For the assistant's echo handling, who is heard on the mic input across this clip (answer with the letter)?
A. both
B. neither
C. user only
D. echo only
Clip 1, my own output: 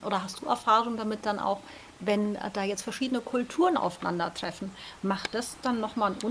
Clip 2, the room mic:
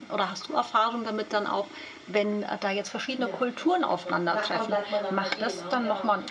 A